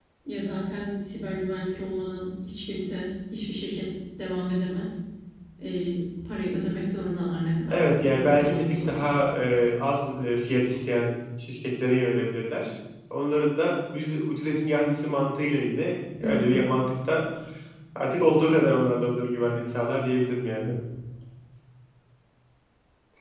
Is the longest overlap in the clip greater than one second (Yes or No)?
Yes